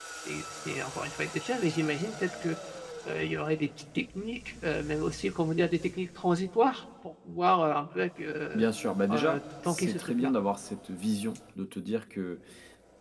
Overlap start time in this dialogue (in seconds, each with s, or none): 8.5 s